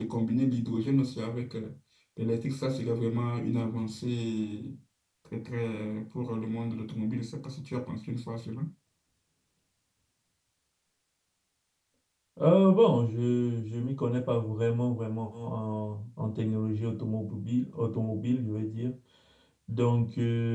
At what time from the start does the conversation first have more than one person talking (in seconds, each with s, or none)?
none